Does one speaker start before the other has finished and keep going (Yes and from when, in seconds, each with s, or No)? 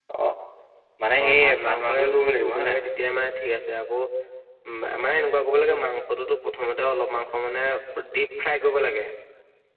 Yes, from 1.2 s